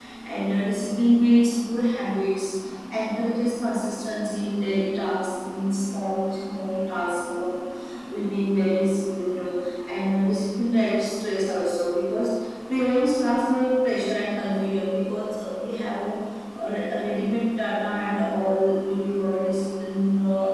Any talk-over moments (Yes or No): No